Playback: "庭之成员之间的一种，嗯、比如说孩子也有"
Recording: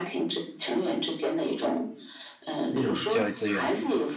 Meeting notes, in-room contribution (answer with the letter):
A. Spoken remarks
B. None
A